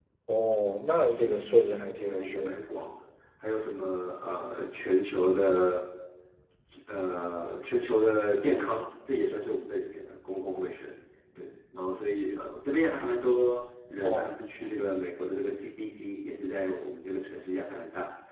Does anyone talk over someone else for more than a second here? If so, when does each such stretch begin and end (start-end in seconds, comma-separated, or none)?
1.1-2.6